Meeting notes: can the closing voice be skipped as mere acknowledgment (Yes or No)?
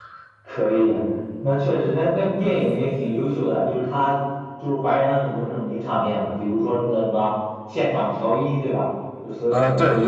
No